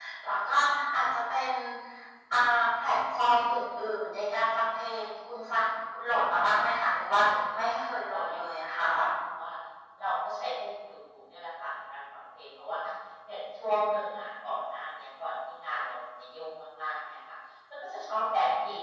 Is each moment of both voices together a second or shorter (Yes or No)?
No